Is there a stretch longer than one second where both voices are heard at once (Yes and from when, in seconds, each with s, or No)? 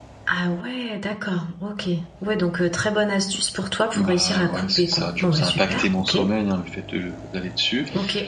Yes, from 3.9 s